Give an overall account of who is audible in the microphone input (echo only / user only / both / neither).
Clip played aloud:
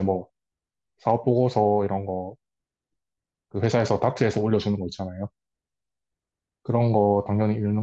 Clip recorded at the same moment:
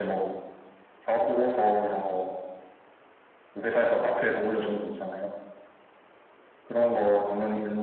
echo only